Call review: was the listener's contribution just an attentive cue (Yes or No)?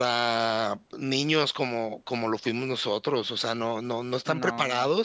Yes